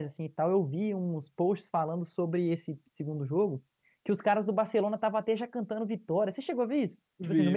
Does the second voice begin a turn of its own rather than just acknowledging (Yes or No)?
Yes